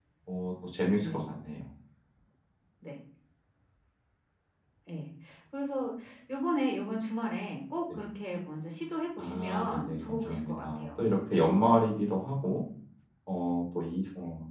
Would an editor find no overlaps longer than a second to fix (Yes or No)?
No